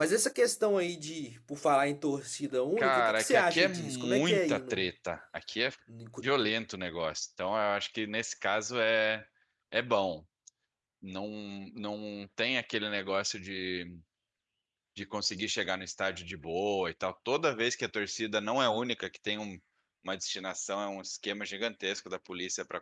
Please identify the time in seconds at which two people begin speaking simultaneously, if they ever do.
2.8 s

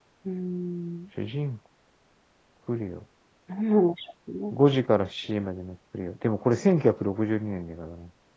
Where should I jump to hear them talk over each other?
none

